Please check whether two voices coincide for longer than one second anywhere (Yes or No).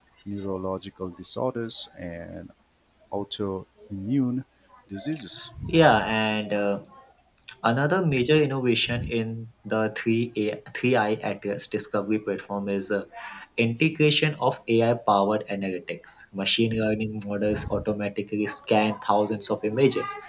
No